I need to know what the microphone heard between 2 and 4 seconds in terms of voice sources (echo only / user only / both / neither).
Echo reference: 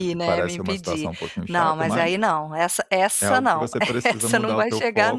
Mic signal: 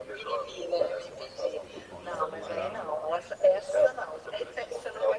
both